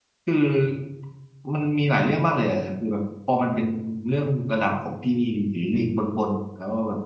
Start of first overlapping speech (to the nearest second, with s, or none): none